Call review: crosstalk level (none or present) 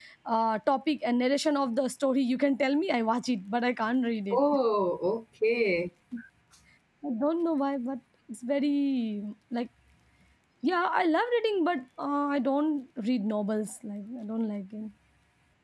none